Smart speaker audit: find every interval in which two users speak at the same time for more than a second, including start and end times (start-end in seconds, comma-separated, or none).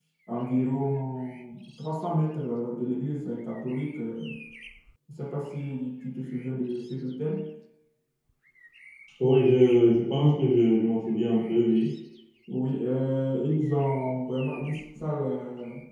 none